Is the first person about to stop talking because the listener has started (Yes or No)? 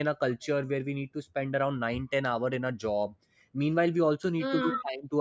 No